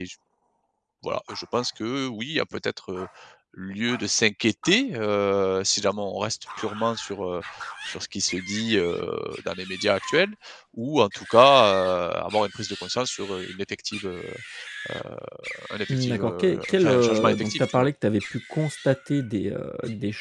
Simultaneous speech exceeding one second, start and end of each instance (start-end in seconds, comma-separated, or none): 15.9-17.9